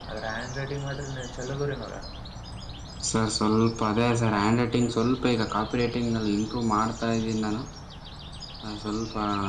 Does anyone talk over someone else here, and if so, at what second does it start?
none

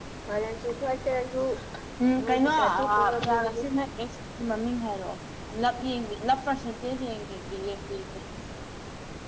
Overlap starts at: 2.2 s

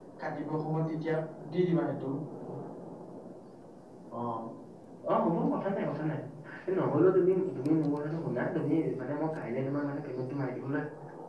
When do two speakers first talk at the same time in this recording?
none

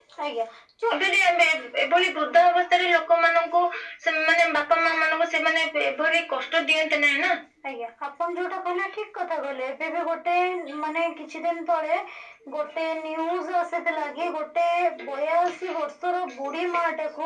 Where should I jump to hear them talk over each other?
none

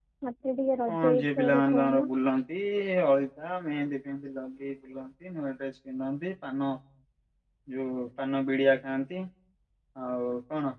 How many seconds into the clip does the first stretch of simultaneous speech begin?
0.9 s

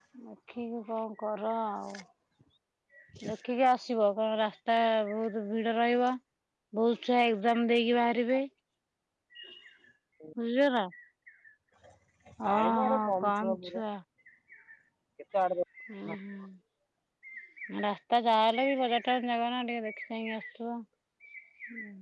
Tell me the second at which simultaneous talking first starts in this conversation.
12.5 s

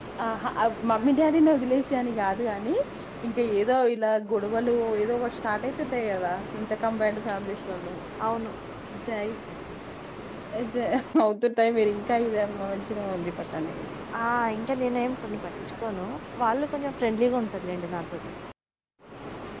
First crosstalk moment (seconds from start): none

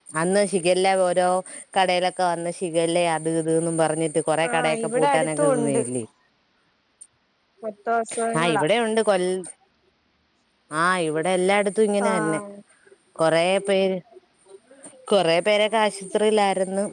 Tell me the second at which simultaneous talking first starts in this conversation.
4.5 s

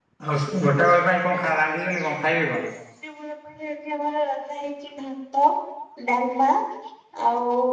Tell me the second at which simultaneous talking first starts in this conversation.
none

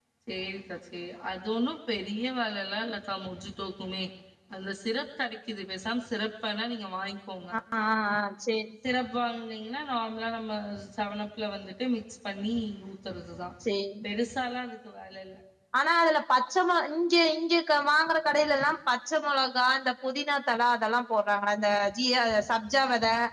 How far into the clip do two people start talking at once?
none

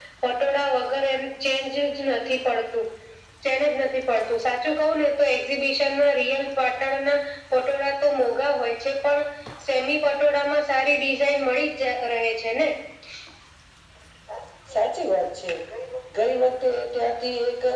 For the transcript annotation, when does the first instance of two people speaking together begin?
none

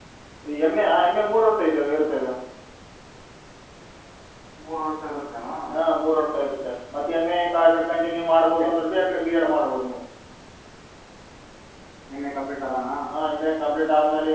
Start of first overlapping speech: none

